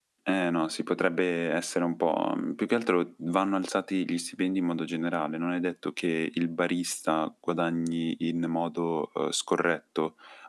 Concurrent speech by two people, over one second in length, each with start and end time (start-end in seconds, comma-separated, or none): none